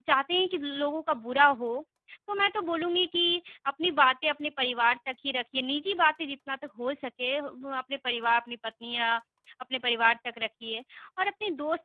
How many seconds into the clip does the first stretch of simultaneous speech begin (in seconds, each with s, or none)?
none